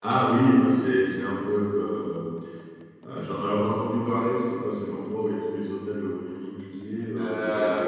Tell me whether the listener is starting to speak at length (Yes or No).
Yes